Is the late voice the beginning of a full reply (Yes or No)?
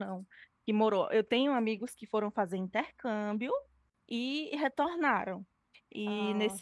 No